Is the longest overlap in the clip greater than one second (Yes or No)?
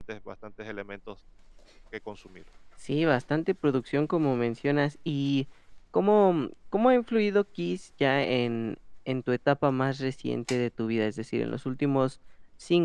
No